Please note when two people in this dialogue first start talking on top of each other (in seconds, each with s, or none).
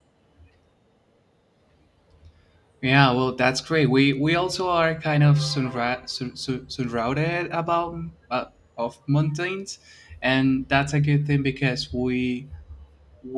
none